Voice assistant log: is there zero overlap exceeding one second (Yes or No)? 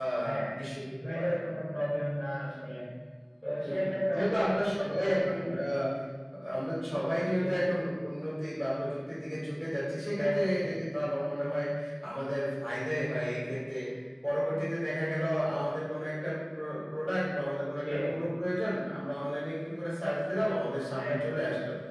No